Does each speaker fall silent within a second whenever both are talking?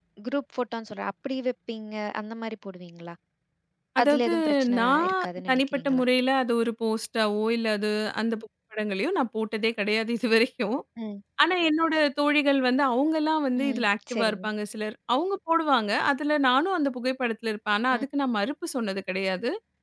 No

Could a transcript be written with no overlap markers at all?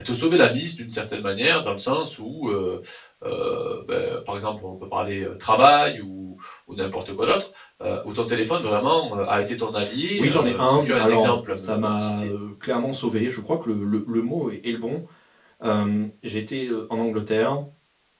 No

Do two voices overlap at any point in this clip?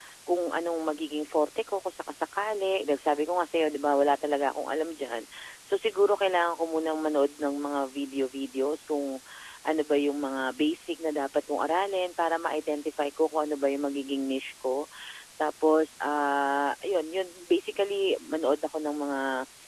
No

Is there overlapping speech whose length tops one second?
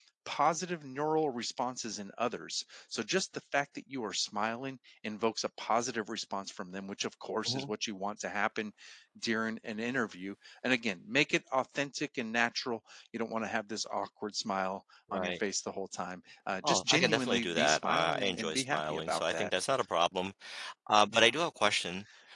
Yes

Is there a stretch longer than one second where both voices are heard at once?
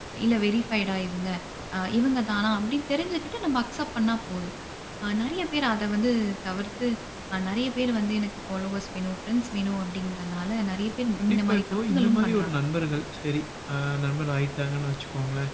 Yes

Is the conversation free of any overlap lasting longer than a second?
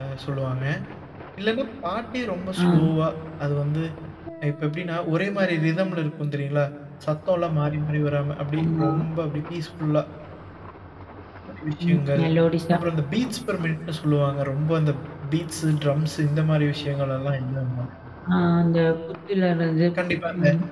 Yes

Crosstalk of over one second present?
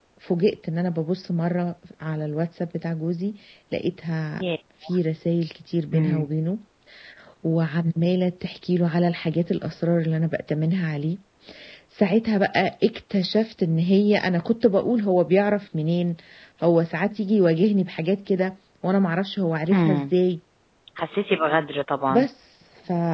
No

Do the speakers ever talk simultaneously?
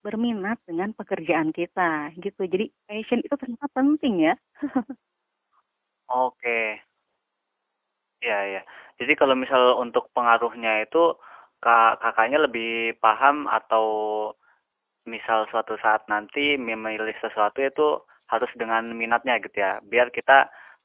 No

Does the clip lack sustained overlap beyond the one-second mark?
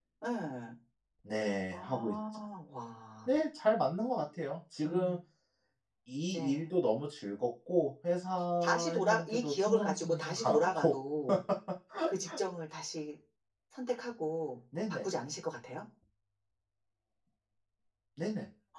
No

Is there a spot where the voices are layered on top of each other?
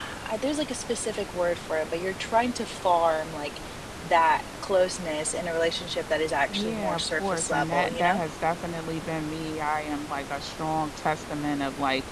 Yes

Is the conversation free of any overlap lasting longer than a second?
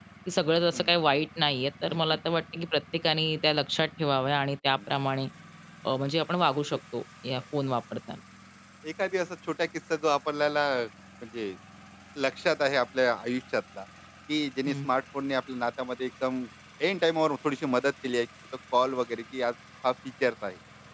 Yes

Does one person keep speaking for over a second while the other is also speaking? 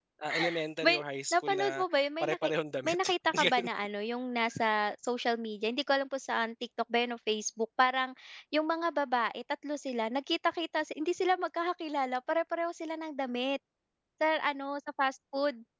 Yes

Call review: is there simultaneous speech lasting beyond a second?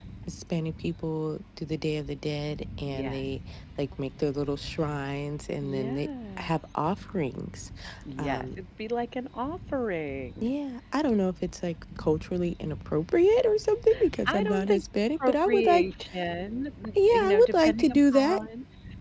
Yes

